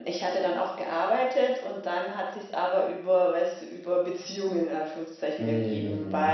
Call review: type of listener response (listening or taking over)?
listening